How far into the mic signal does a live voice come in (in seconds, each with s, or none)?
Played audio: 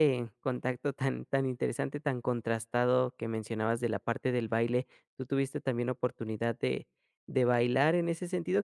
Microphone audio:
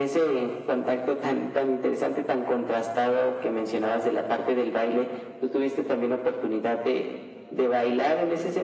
none